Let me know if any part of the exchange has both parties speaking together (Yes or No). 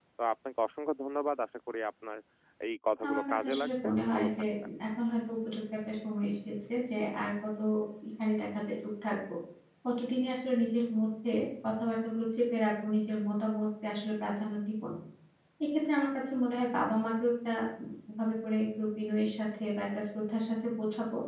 Yes